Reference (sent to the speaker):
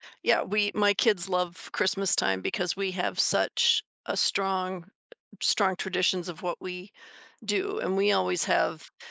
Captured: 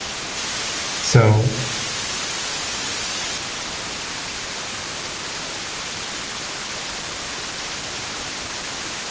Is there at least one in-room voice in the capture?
Yes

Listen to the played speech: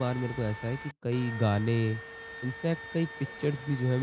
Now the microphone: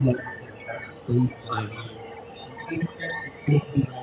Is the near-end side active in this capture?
Yes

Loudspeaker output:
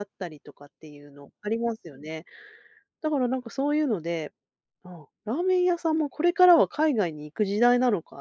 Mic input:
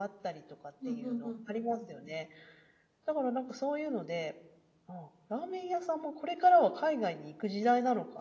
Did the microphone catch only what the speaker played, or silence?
No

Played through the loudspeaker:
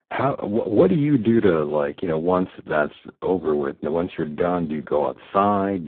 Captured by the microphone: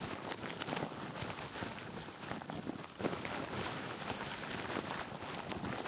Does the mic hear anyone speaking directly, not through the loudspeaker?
No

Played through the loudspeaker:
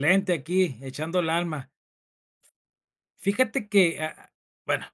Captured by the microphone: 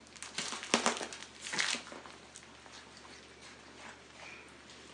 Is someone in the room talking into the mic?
No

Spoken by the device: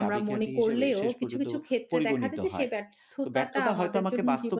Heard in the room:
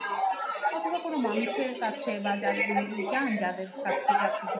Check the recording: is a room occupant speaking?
Yes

